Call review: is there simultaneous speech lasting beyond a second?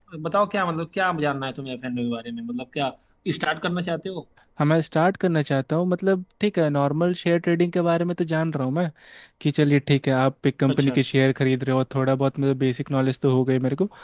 No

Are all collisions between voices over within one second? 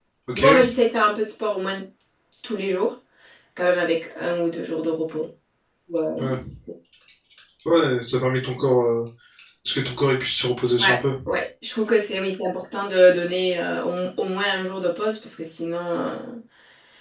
Yes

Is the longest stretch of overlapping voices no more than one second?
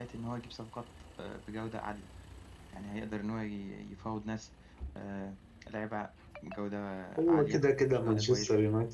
No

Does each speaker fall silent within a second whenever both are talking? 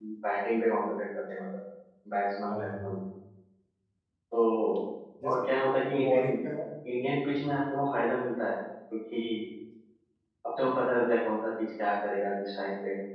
Yes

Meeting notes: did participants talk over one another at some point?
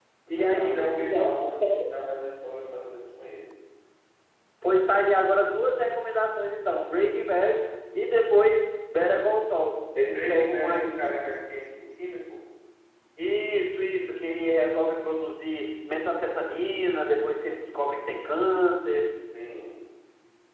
Yes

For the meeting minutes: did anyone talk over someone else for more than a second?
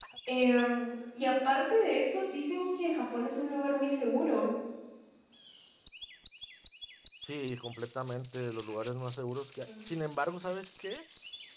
No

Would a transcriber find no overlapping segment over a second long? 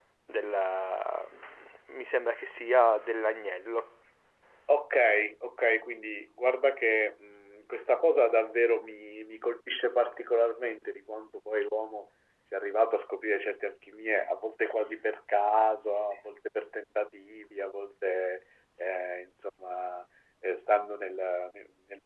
Yes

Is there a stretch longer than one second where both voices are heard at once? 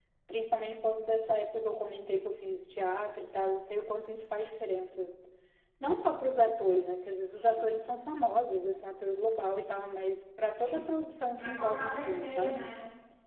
Yes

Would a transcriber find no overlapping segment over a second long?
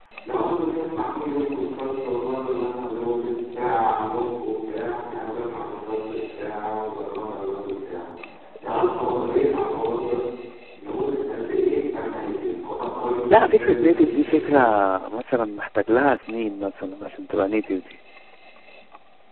No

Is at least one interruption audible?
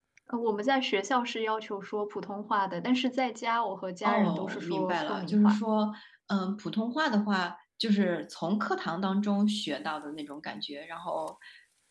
Yes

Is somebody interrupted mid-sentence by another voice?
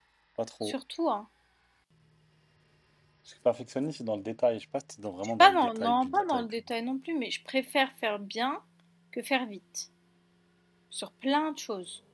Yes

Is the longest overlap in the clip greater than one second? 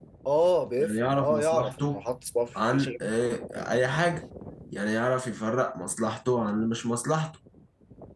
Yes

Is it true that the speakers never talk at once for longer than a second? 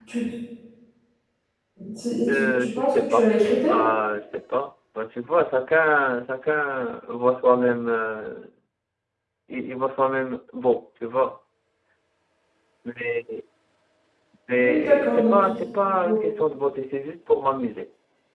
No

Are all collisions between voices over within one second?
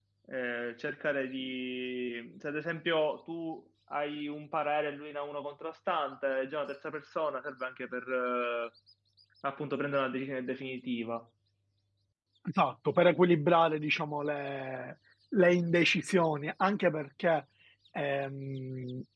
Yes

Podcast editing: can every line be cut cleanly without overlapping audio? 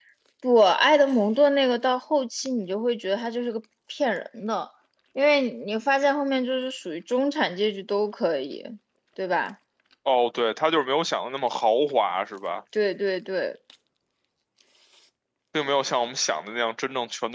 Yes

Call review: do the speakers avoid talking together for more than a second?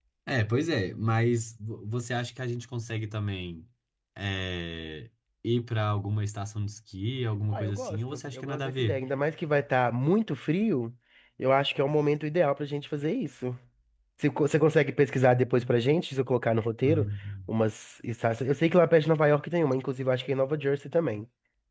No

